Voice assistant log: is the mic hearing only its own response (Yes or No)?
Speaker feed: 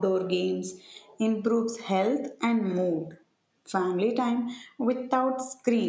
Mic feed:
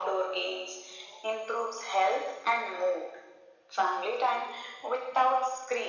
Yes